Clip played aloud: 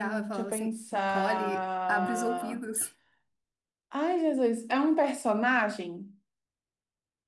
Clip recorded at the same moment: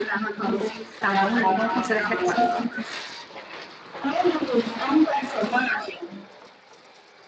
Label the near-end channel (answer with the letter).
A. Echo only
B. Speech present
B